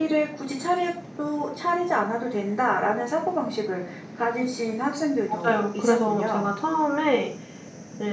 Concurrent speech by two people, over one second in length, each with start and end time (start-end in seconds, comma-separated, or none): 5.3-6.6